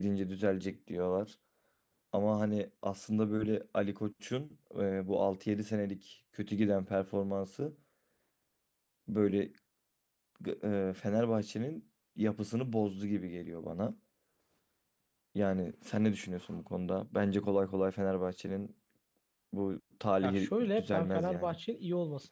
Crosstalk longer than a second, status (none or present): present